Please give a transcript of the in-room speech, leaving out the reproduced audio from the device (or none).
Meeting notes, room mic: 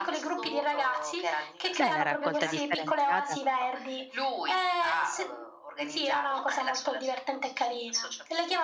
Beh, la raccolta differenziata.